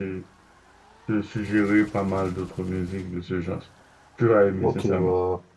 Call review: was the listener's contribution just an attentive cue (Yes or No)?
No